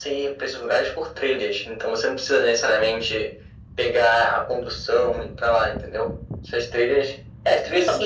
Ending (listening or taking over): taking over